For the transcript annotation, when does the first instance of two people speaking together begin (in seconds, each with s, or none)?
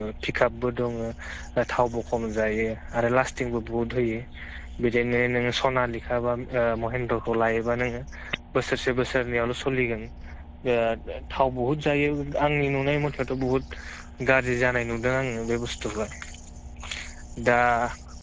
none